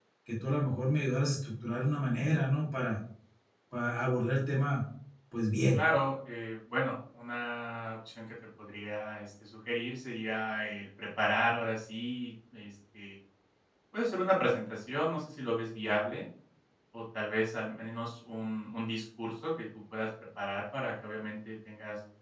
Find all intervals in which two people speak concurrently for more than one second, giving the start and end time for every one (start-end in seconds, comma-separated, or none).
none